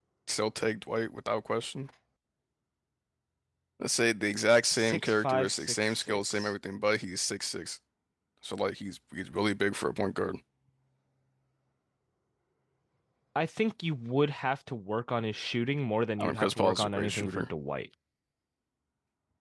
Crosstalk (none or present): present